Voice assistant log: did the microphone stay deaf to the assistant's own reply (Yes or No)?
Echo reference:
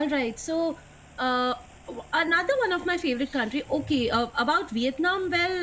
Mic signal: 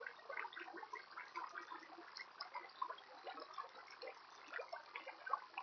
Yes